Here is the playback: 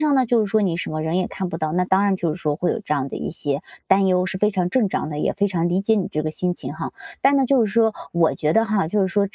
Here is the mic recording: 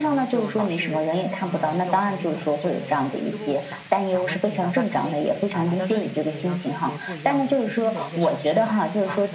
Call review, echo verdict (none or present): present